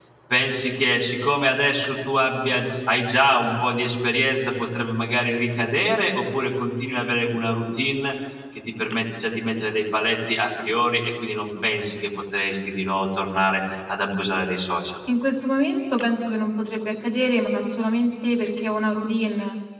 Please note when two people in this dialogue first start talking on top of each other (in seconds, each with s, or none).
none